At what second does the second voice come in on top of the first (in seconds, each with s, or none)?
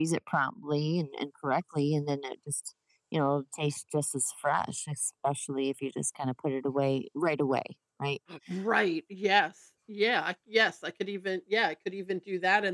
none